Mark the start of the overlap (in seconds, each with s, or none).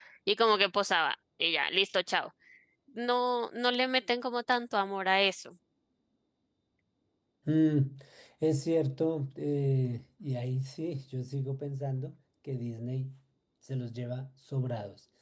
none